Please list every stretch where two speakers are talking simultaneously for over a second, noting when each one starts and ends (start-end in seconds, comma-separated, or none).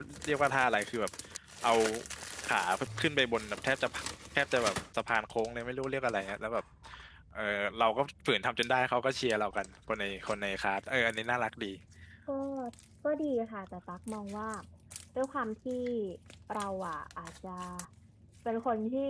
none